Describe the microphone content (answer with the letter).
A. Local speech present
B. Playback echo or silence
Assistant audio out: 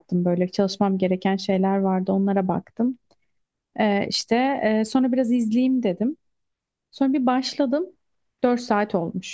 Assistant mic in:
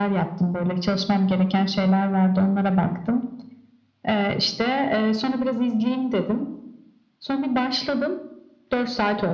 B